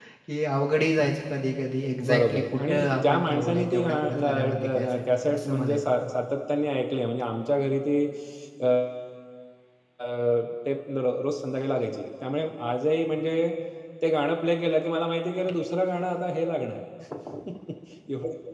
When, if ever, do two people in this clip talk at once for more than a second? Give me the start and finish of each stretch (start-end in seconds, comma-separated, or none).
2.0-6.1